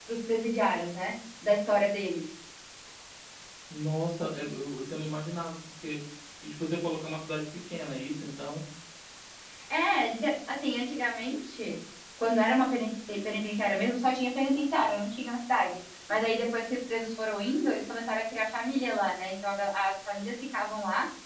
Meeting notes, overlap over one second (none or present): none